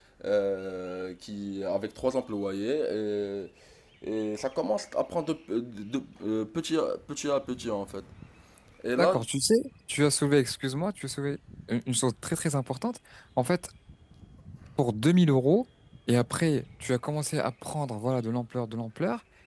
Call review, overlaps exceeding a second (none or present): none